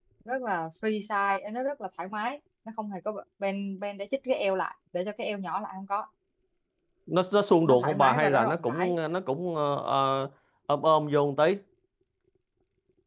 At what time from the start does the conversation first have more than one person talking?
7.7 s

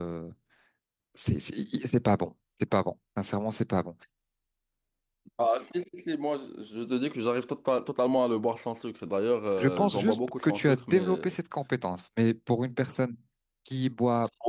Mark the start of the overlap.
9.6 s

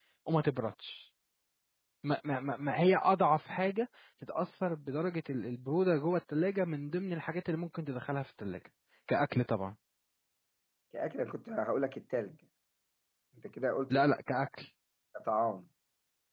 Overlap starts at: none

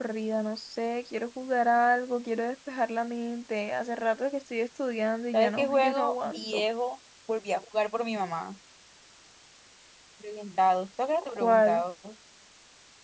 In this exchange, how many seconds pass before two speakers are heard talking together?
5.3 s

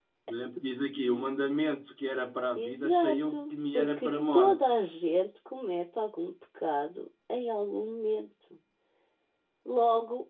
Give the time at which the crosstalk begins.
2.5 s

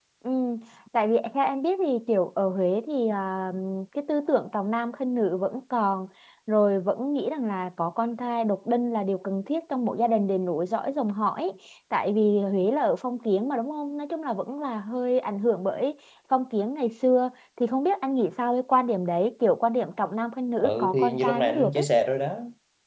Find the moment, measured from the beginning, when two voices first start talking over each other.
20.6 s

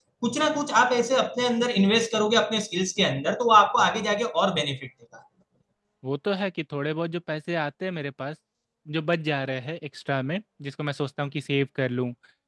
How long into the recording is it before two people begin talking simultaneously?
none

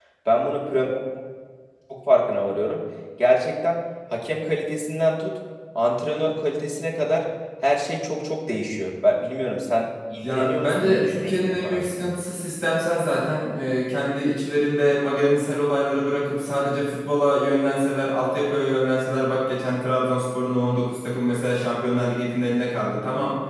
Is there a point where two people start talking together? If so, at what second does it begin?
10.2 s

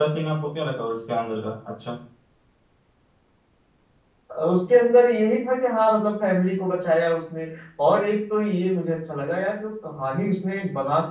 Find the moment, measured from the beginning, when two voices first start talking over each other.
none

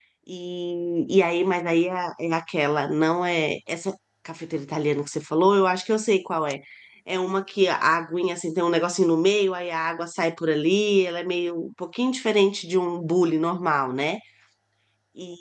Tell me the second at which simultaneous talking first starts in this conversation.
none

